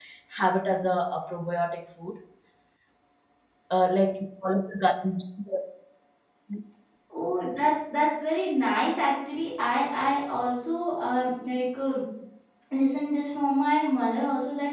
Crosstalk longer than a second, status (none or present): none